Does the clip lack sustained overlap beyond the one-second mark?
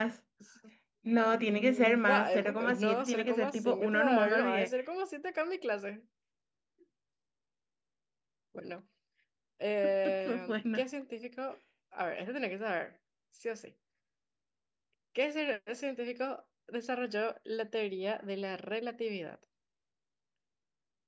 No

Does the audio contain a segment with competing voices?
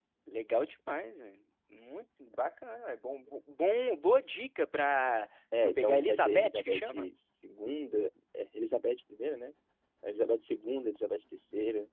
Yes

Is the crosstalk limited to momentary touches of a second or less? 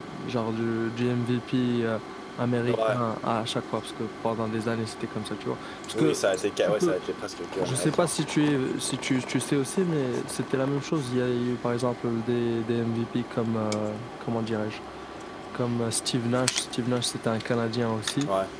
Yes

